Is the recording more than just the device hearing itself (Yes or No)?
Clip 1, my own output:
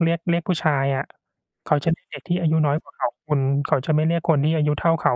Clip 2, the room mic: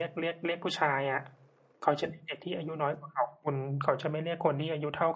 No